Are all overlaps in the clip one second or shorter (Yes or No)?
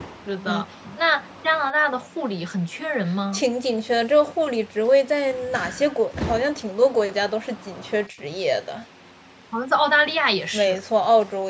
Yes